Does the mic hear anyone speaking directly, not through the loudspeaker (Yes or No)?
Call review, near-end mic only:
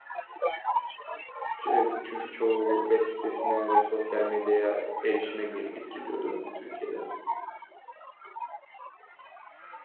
Yes